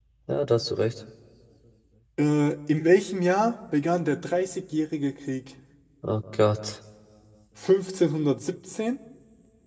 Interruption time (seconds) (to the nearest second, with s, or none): none